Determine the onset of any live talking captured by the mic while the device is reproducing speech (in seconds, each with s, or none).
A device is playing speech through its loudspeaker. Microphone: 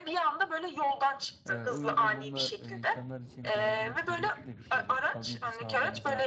1.4 s